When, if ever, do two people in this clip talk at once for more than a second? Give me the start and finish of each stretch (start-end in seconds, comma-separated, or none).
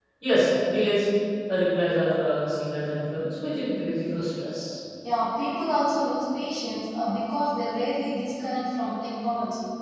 none